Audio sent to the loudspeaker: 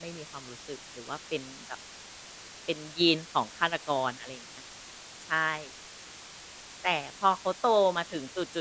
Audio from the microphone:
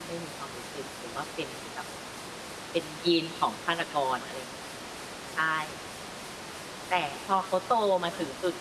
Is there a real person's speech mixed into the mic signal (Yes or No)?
No